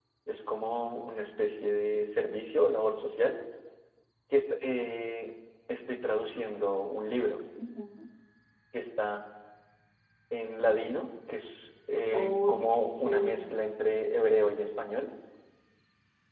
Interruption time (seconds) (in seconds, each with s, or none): 12.1 s